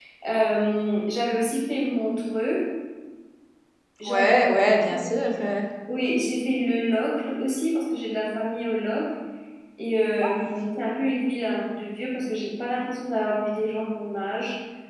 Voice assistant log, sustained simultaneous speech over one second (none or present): none